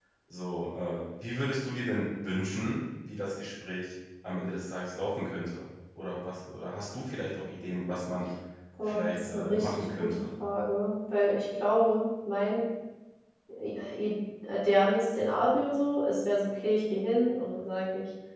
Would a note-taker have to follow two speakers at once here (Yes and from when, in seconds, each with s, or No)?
Yes, from 8.8 s